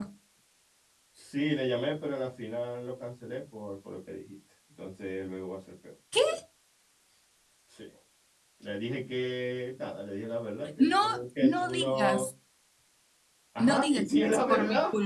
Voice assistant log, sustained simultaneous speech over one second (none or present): present